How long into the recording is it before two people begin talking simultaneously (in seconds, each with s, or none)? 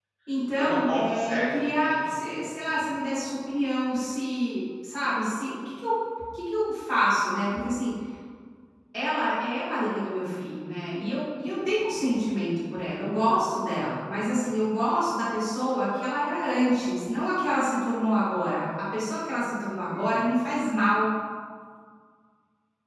0.6 s